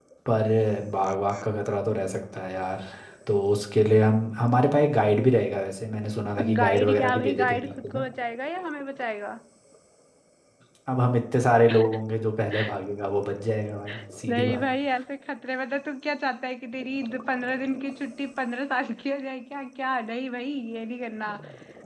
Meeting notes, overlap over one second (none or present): present